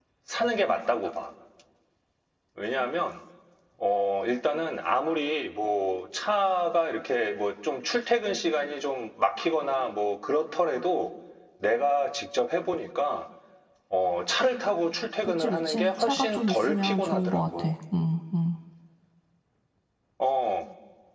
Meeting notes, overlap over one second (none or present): present